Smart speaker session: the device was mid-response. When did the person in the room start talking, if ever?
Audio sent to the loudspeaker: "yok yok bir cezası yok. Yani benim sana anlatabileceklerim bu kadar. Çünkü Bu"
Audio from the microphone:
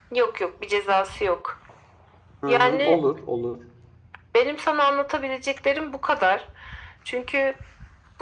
2 s

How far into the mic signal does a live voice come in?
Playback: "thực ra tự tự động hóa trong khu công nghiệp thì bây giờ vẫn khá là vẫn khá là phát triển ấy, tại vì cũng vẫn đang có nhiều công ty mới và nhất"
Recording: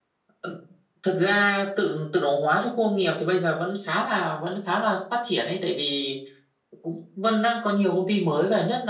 none

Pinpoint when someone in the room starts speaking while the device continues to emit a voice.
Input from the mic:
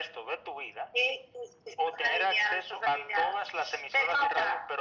none

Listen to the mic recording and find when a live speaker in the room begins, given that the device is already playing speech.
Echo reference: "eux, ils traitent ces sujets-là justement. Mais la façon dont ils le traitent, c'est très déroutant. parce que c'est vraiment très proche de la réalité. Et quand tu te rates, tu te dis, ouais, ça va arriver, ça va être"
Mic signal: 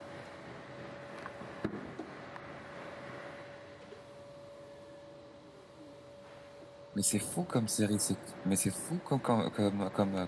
7 s

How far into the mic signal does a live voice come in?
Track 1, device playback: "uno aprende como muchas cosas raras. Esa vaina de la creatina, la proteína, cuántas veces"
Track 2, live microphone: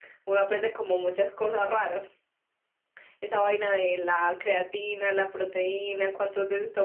none

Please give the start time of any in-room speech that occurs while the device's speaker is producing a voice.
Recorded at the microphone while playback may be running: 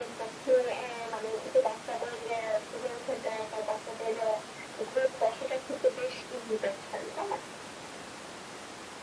none

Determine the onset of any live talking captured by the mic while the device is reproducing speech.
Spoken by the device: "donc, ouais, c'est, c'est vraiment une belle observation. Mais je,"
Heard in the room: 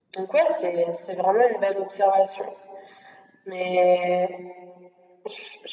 none

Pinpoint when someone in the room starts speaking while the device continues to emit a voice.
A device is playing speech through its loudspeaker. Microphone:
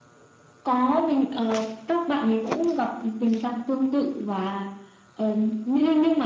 none

